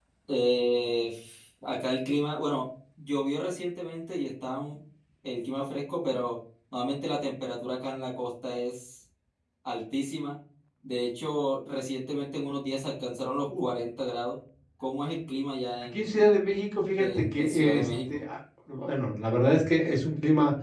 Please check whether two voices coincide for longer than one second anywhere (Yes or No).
Yes